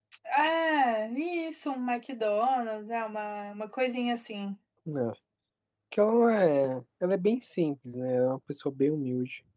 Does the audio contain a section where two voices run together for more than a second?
No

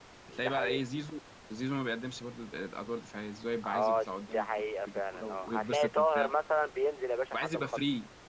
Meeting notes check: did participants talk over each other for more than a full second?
Yes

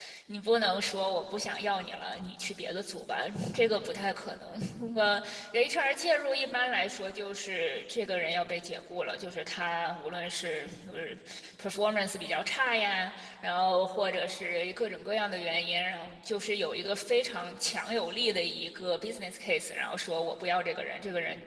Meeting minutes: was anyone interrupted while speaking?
No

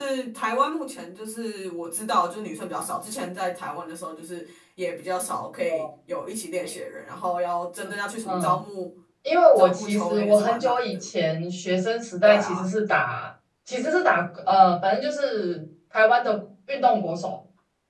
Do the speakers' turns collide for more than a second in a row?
Yes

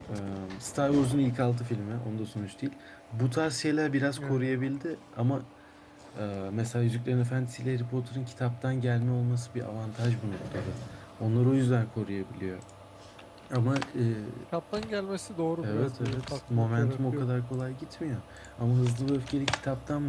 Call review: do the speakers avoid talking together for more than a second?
No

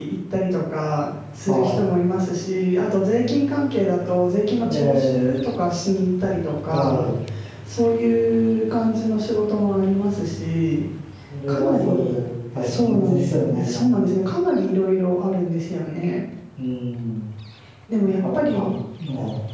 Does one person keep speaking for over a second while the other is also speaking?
Yes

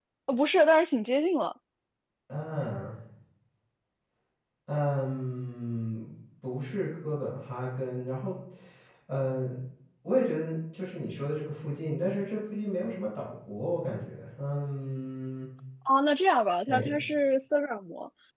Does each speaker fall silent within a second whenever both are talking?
Yes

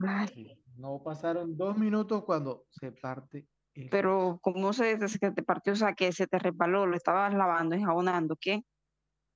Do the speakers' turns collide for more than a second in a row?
No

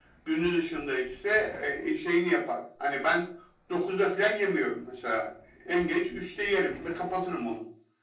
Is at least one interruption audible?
No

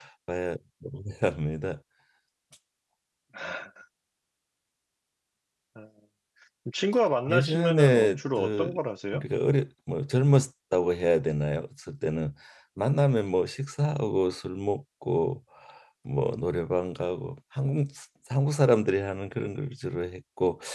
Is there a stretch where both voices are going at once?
Yes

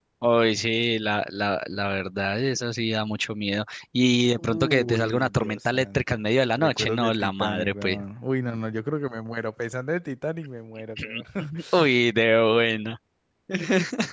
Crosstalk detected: Yes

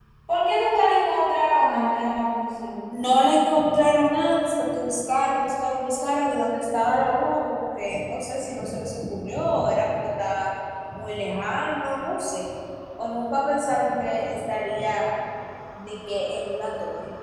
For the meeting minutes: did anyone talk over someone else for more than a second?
No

